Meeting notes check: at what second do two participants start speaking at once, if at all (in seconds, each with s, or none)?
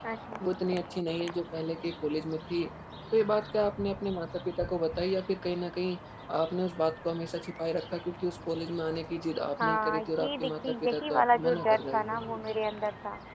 9.6 s